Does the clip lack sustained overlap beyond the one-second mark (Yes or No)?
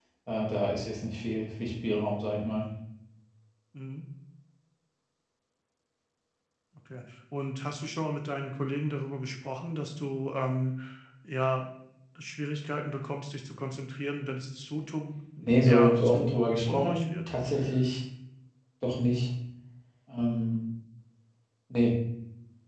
No